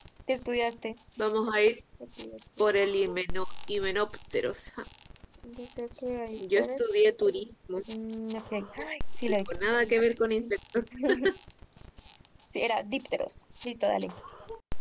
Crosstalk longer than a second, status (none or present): none